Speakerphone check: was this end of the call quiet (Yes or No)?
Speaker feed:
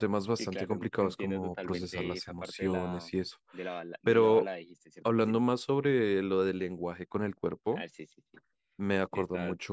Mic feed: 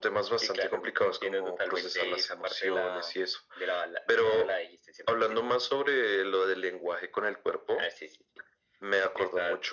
Yes